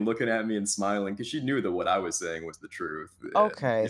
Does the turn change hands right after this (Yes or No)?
Yes